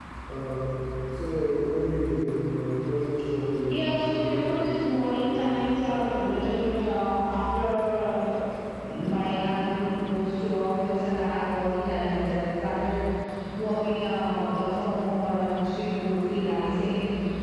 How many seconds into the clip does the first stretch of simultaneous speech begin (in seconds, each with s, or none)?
3.7 s